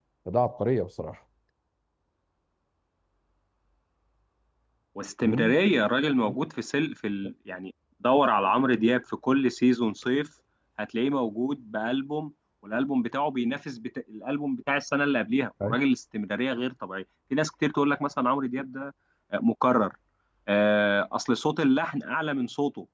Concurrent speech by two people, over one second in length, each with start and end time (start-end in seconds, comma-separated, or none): none